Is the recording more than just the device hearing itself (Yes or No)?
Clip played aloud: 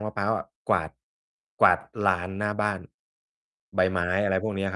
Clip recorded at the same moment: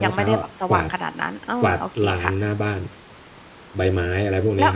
Yes